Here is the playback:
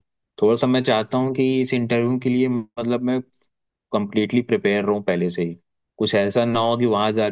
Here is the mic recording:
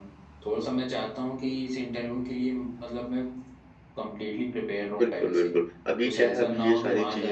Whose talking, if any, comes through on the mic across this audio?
both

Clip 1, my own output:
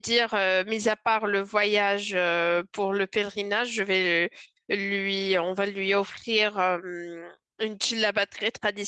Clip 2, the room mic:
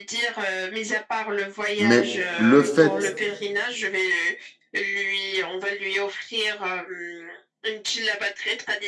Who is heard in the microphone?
both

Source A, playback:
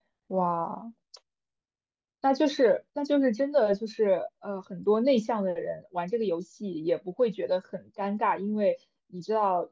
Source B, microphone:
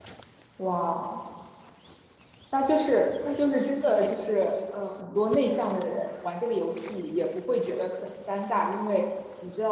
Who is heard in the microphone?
echo only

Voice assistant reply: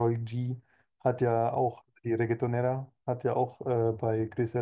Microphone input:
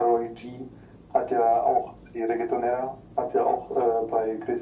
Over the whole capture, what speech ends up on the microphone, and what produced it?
echo only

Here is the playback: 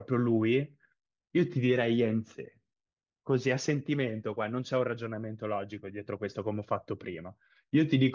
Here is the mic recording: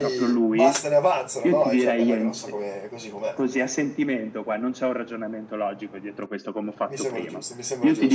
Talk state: both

